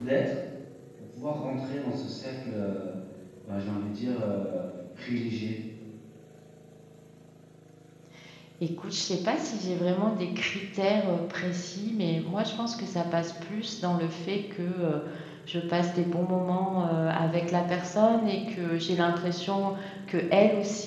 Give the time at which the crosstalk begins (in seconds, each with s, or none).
none